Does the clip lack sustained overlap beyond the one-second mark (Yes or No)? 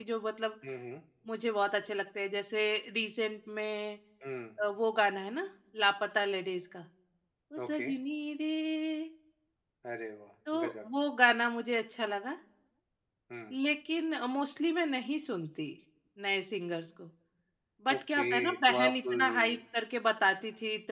No